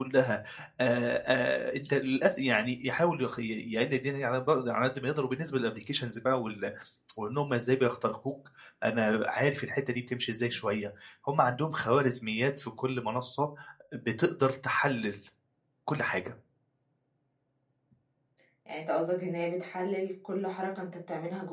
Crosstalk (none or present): none